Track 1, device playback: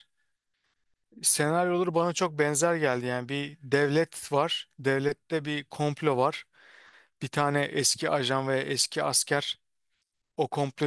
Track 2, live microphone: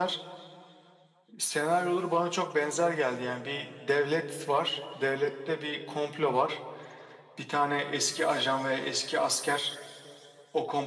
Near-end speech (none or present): none